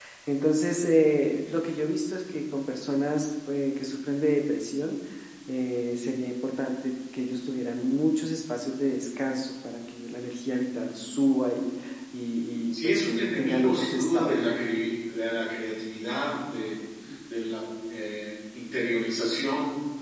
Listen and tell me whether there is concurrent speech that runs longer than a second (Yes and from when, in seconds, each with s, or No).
Yes, from 12.7 s